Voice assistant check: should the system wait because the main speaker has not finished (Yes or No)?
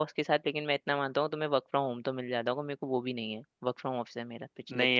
No